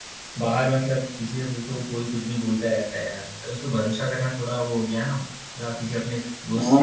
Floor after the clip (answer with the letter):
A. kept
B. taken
B